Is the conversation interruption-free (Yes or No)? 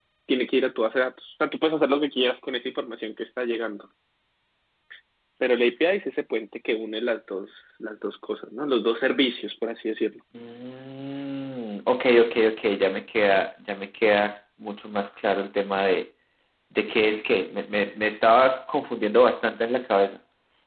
Yes